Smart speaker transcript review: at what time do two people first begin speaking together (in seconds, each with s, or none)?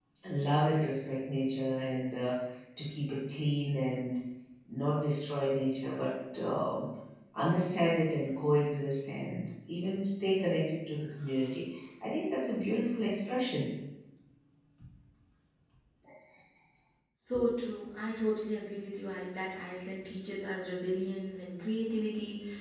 none